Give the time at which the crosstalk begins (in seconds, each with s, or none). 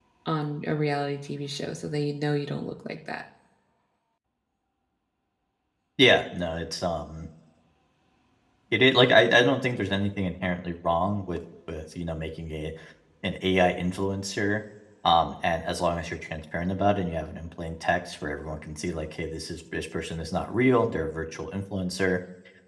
none